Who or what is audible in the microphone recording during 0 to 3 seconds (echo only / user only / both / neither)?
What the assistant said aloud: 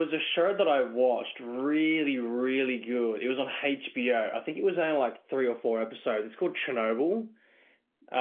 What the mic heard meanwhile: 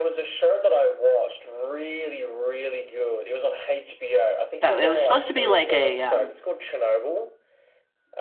echo only